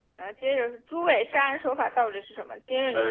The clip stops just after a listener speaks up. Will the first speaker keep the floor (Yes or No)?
No